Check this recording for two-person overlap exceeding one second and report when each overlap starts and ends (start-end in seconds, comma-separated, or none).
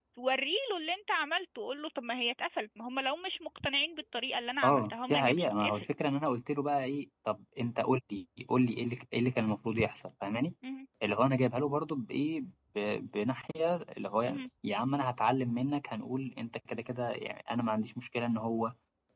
4.6-5.8